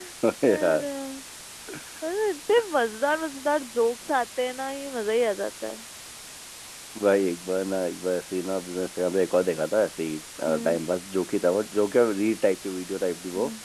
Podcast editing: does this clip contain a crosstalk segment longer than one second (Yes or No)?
No